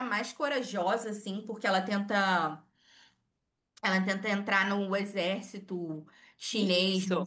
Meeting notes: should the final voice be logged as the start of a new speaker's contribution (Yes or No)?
Yes